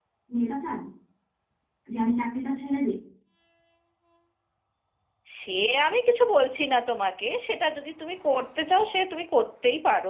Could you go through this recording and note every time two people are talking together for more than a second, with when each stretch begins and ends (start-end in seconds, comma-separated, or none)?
none